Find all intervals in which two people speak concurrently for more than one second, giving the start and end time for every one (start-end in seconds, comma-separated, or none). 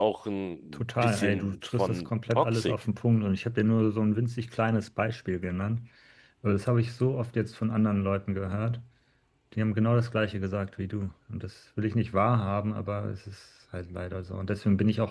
0.7-2.7